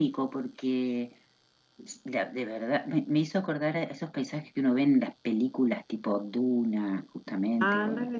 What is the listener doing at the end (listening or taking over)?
taking over